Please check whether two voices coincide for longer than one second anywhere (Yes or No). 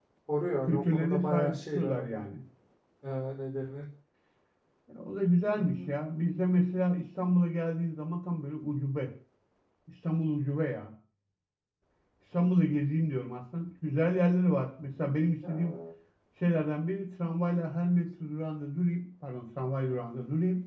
Yes